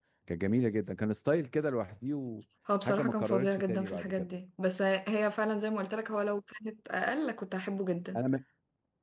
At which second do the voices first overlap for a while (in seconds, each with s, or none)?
2.7 s